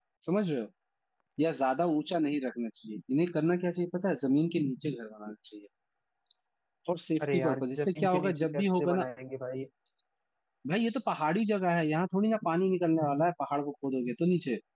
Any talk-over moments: Yes, from 7.2 s

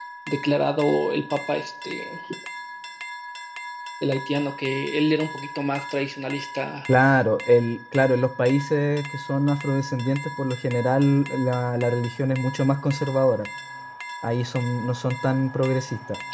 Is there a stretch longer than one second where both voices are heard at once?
No

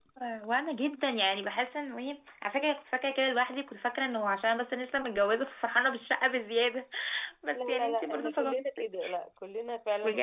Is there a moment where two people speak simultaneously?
Yes, from 7.5 s

